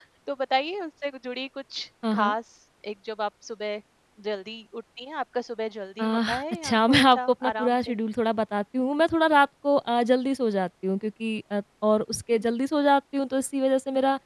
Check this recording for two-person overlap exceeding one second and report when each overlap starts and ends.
6.0-8.0

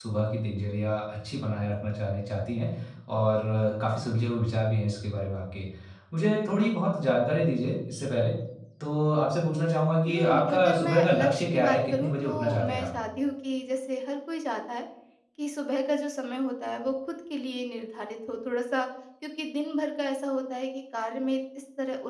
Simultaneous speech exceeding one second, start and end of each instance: 10.1-12.9

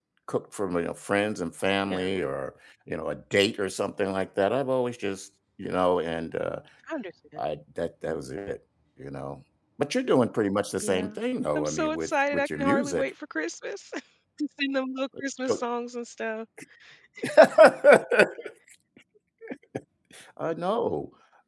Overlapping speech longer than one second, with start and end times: 11.5-13.1

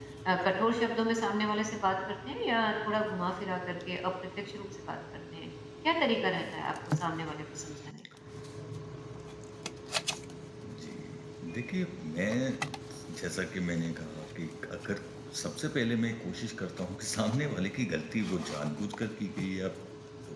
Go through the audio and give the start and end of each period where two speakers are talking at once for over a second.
none

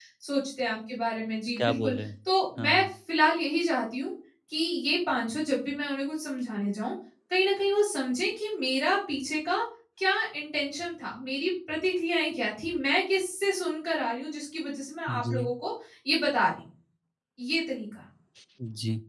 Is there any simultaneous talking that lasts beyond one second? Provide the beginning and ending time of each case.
none

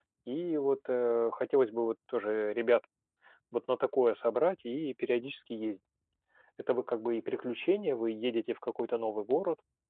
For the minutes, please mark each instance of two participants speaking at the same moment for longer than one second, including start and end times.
none

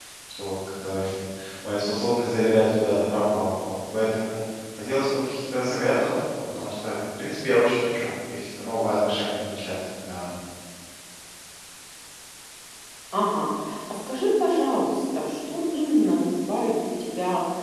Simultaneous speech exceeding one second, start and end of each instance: none

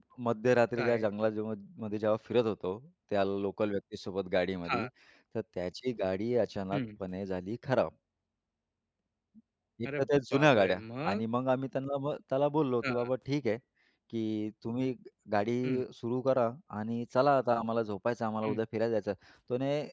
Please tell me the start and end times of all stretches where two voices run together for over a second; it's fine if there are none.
10.0-11.2

